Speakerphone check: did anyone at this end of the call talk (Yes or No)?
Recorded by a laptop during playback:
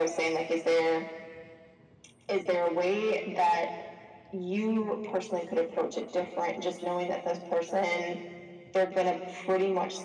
No